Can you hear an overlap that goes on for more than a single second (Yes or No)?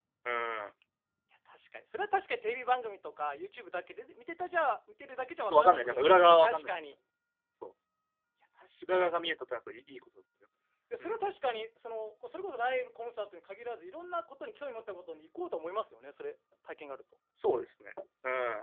Yes